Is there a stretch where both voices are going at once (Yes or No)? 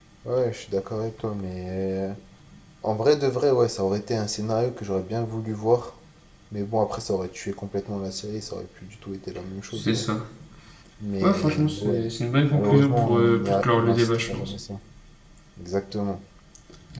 Yes